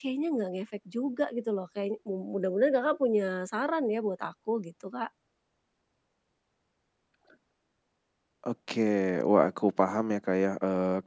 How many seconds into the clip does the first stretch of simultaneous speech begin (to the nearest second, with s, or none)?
none